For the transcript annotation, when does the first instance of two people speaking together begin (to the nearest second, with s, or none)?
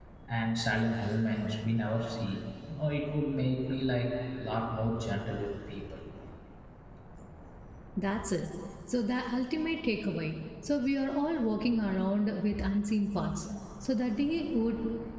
none